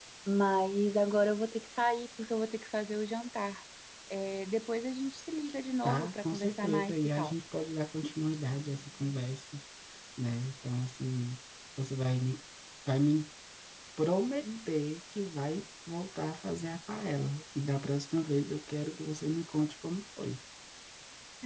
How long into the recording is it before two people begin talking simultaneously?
5.8 s

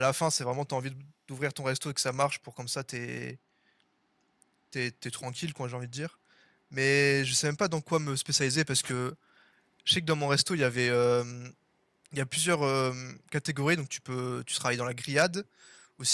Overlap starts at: none

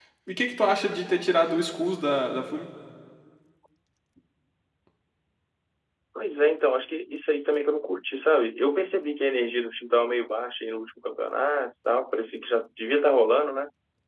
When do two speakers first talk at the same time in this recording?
none

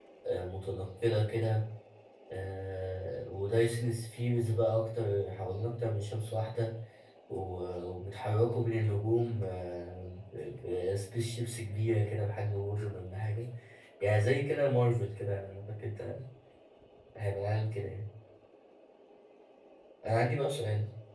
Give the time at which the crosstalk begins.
none

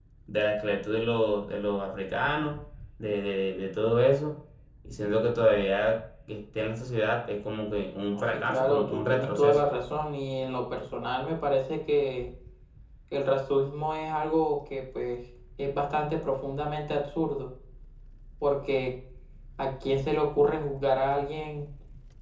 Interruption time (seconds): 8.1 s

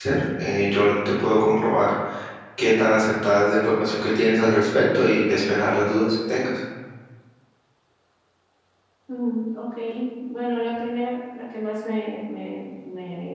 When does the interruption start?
none

